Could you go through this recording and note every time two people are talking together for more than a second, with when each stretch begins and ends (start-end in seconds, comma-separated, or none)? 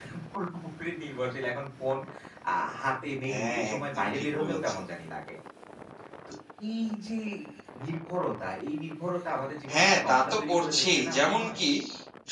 3.3-4.8, 9.7-11.6